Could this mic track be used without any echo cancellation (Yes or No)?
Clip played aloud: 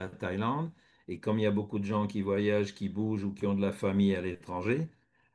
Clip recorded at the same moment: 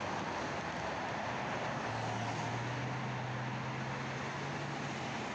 Yes